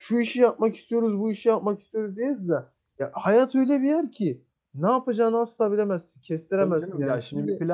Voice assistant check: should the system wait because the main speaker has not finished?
No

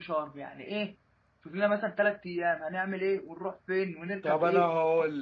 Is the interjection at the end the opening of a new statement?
Yes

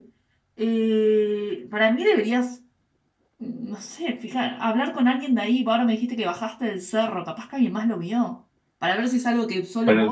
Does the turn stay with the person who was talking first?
No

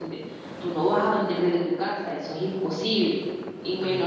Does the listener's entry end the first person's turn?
No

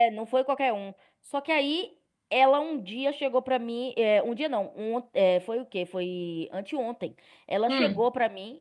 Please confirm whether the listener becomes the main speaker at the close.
No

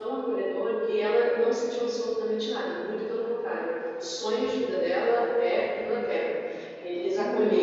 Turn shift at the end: No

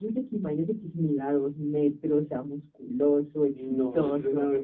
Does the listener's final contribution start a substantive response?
Yes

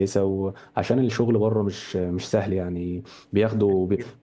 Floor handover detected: No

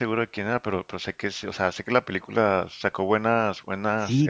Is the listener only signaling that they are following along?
No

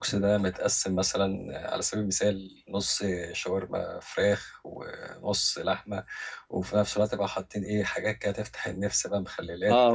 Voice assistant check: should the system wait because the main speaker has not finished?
No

